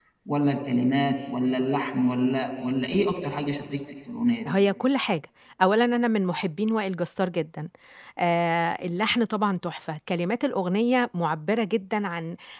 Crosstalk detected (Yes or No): No